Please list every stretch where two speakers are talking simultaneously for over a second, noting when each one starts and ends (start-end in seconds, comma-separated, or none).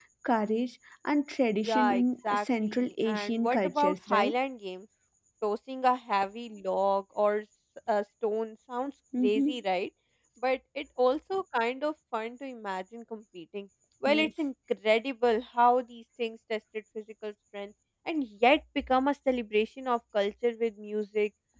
1.6-4.3